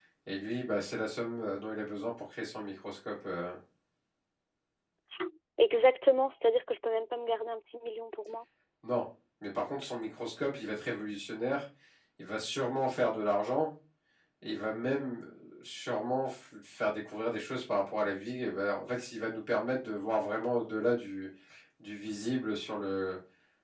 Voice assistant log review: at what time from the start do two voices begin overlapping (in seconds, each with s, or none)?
none